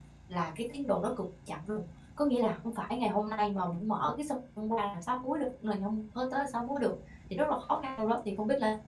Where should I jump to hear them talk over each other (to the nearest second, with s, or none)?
none